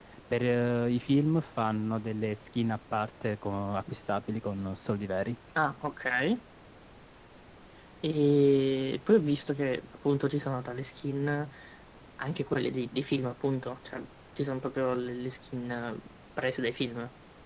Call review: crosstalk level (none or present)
none